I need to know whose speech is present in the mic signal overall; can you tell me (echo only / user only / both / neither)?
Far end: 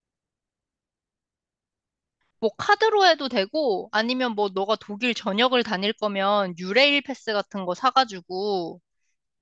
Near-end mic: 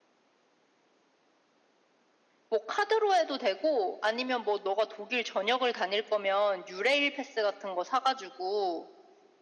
echo only